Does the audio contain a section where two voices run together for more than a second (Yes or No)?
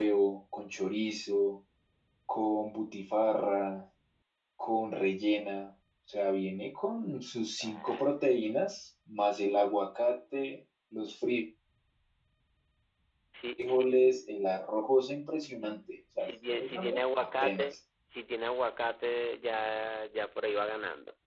Yes